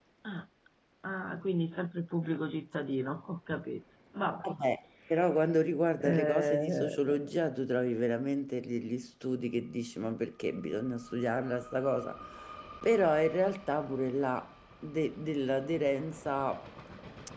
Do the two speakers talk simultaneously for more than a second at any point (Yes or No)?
Yes